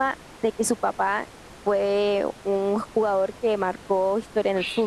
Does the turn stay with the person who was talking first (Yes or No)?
No